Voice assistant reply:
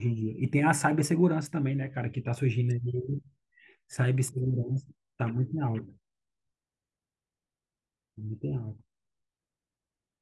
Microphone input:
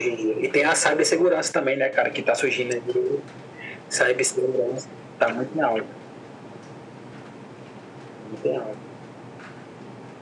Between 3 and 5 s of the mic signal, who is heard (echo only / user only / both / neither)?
echo only